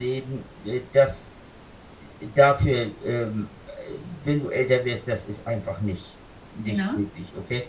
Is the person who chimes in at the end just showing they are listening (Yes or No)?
Yes